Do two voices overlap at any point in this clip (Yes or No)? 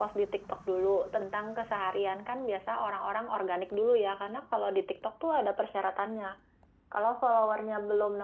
No